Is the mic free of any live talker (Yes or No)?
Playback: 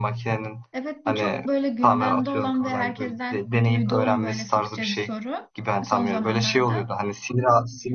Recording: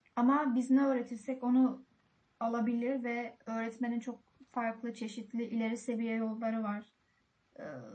No